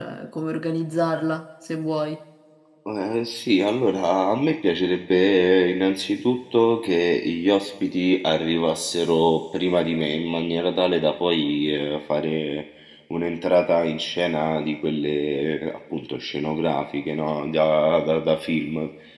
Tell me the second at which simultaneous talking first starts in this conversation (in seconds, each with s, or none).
none